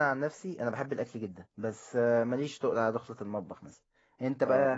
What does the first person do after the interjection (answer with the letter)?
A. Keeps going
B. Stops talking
B